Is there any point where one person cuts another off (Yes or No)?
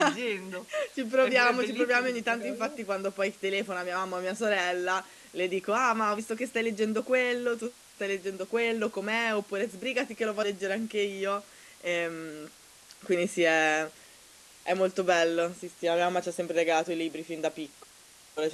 Yes